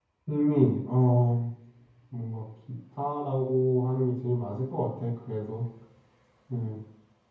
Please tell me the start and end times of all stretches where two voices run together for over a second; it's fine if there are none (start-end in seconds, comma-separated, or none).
none